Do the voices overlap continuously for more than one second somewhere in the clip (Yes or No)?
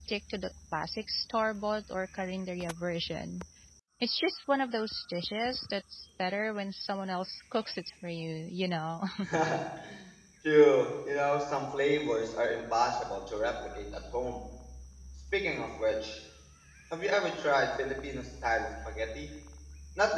No